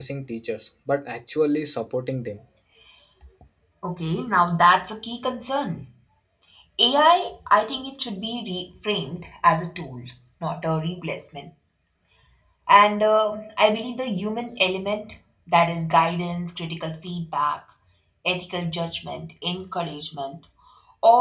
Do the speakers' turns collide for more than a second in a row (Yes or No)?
No